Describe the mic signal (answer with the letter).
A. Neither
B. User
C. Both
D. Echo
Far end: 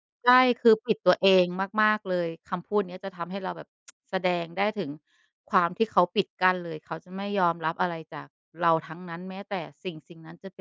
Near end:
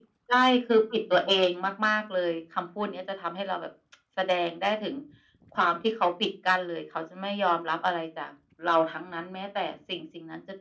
D